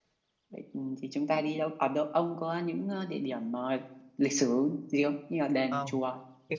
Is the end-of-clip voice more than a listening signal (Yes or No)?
Yes